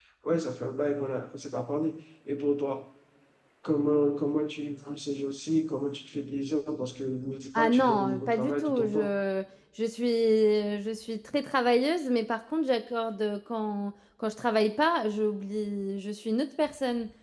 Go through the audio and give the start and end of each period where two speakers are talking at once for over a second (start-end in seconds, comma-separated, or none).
7.6-9.1